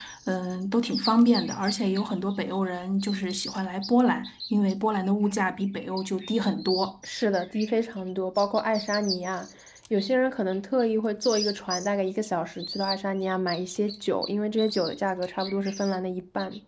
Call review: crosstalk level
none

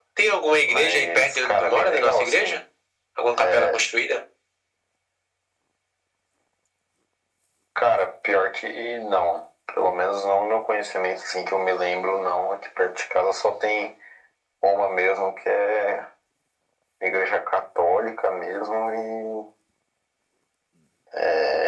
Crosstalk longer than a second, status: present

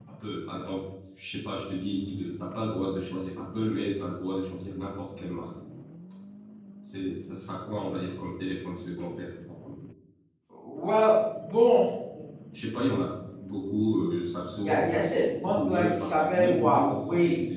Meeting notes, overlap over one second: present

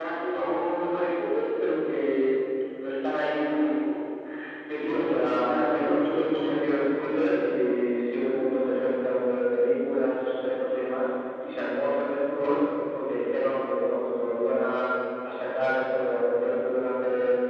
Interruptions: present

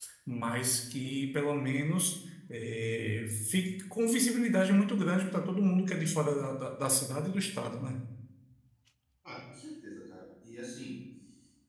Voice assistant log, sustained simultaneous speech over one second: none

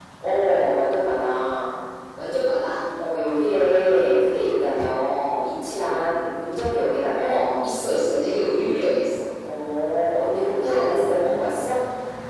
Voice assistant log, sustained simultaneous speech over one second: none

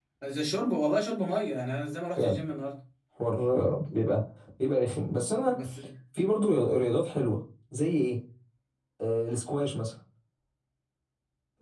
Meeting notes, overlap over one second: none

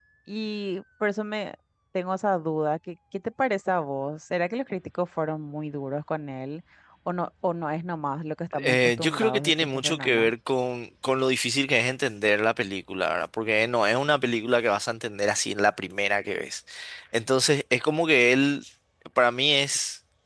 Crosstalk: present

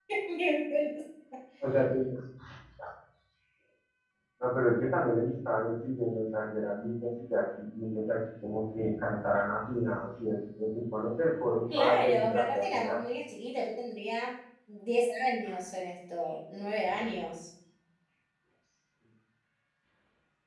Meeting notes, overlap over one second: present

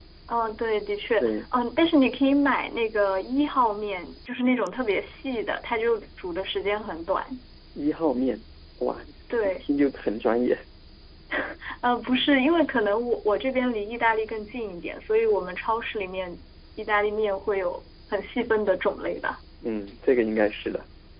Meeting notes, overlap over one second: none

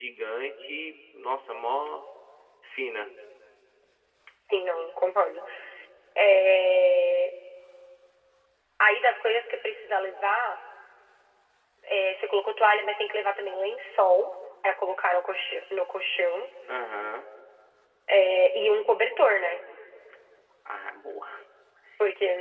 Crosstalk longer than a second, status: none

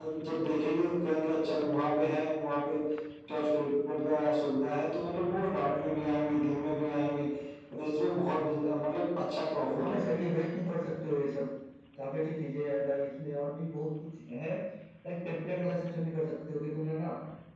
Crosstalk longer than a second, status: none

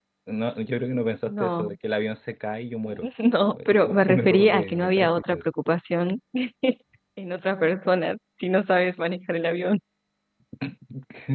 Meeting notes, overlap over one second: present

